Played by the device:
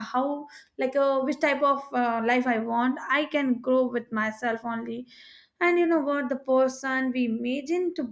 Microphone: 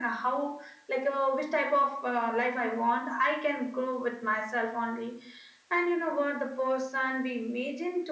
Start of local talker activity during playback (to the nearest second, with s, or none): none